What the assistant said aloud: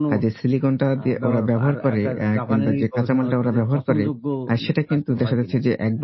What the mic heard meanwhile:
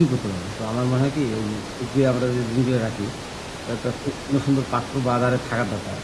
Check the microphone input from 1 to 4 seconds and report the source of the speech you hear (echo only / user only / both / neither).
user only